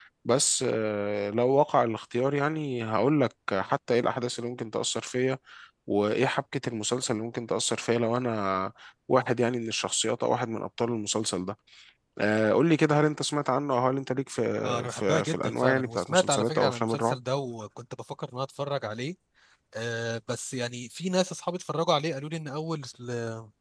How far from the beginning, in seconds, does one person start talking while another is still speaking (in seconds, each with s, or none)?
14.9 s